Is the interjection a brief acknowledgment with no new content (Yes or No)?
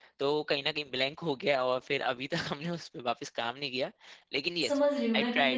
No